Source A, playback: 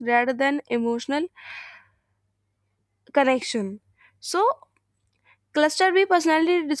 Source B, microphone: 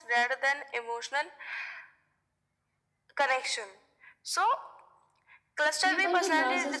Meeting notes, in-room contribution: present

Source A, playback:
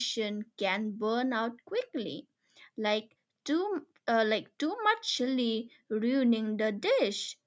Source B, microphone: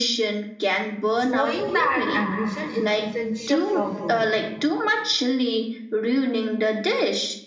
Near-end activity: present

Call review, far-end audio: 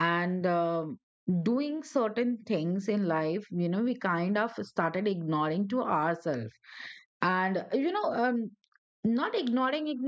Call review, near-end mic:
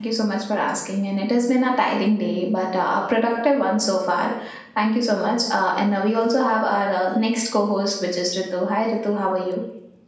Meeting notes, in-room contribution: present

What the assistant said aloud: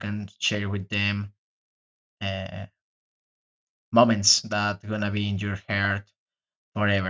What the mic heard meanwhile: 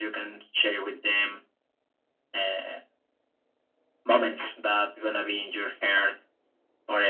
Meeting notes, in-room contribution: none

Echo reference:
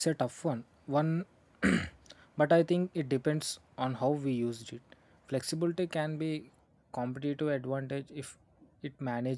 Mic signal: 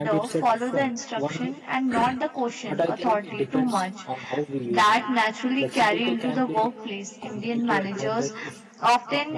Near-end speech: present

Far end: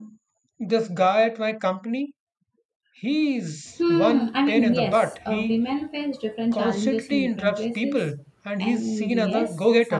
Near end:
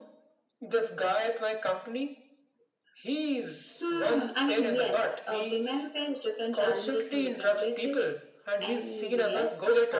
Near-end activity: none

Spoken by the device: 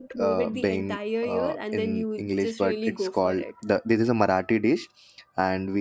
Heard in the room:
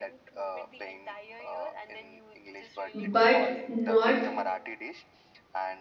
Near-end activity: present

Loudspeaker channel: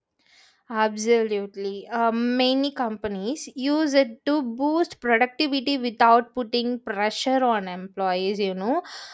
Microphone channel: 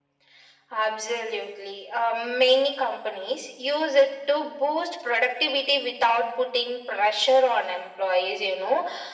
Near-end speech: none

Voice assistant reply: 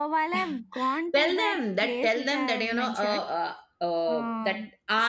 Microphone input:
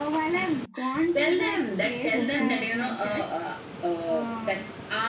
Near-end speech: present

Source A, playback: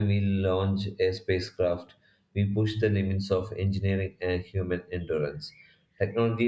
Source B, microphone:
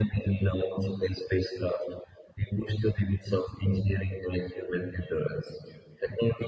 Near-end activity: none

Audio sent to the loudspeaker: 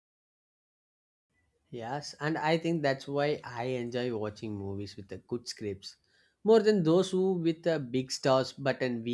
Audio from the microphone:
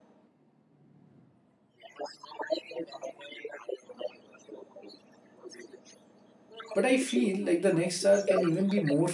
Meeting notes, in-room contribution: present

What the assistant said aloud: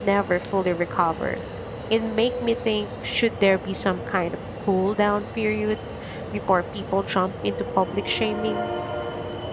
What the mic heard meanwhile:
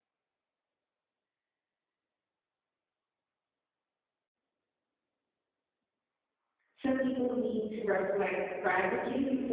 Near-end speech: present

